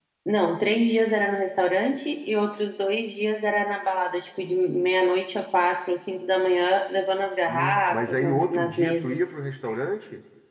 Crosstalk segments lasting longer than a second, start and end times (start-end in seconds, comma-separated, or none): 7.5-9.2